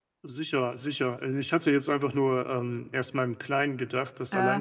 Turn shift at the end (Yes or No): No